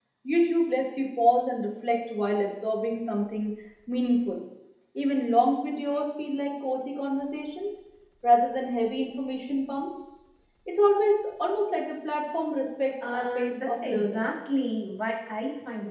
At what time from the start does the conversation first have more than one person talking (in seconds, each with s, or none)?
13.0 s